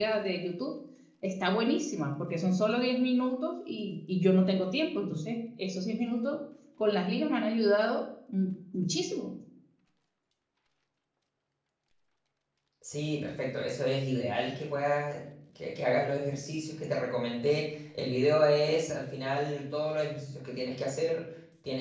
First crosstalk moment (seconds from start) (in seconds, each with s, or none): none